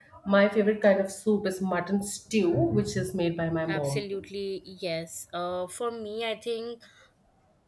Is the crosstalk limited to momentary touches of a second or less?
Yes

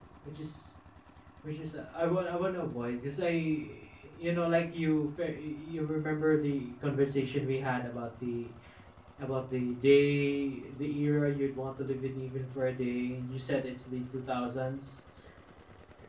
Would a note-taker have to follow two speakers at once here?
No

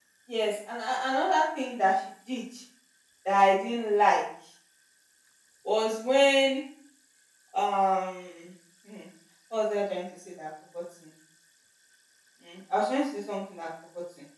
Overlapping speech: No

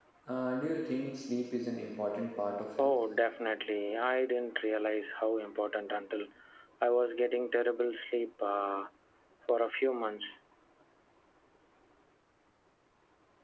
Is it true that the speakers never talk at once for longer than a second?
Yes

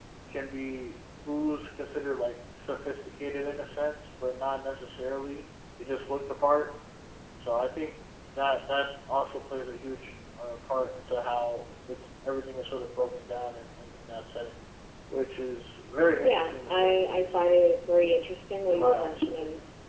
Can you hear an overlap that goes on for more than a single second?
Yes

